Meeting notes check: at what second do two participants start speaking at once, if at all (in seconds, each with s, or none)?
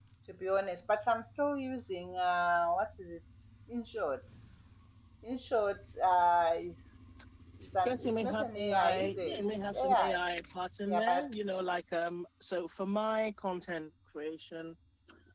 7.8 s